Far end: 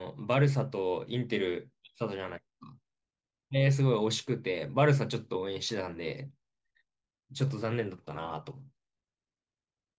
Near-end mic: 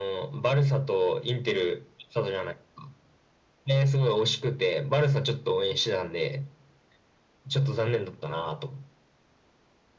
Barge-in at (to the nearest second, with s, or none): none